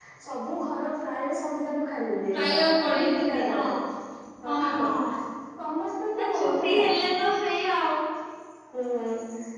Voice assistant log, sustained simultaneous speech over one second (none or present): present